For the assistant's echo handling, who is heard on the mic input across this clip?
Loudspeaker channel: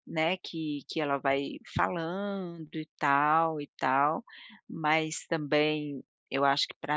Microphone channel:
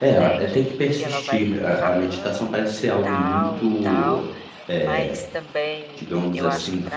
both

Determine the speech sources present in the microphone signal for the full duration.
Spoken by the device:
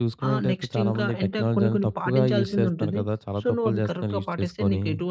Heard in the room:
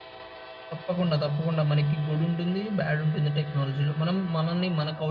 user only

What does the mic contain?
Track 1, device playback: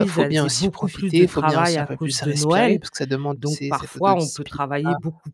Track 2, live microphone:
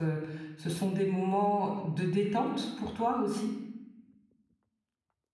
user only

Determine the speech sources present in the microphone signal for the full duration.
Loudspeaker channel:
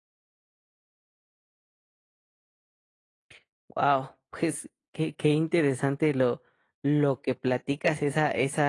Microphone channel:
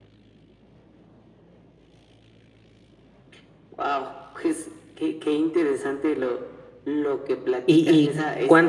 both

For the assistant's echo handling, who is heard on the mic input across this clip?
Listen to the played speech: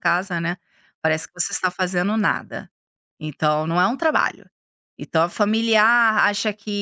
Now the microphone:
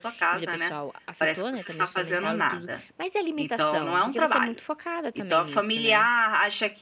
both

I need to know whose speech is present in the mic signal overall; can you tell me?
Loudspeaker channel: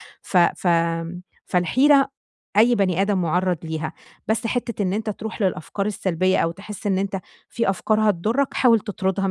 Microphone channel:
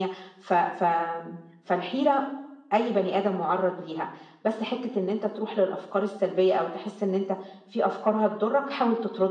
echo only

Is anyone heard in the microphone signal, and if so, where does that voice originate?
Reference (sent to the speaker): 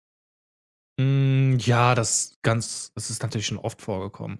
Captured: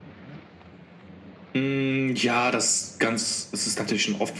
echo only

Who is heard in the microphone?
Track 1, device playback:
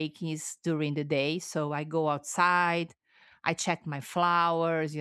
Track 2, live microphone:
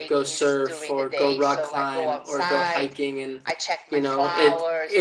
both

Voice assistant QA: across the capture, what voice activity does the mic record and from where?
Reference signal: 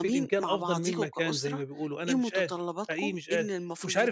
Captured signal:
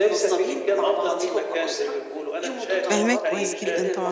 both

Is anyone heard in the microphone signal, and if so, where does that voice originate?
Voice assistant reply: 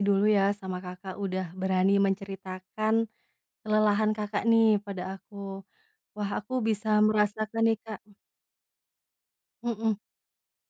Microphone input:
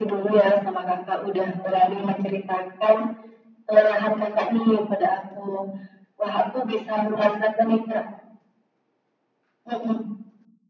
echo only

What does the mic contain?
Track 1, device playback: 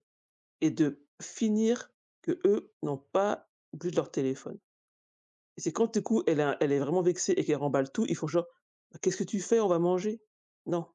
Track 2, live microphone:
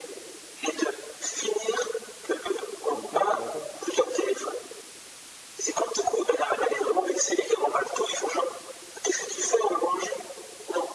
both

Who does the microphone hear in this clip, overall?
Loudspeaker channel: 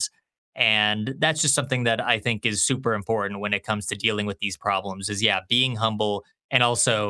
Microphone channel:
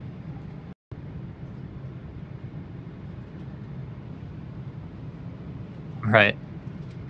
user only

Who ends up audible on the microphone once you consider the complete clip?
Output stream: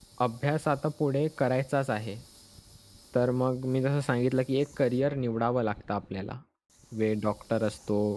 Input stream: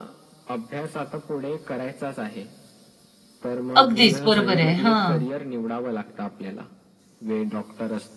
both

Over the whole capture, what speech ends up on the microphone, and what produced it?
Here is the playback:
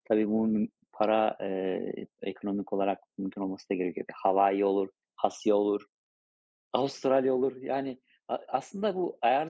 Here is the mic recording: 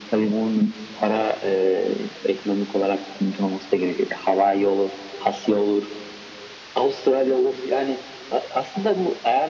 echo only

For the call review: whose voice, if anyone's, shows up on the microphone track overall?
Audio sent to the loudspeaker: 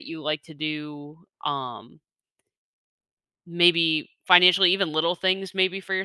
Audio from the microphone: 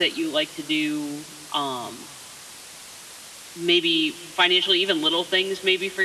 echo only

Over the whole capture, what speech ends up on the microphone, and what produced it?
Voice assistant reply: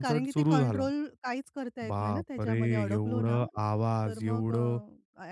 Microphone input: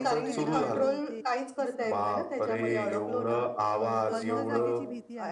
both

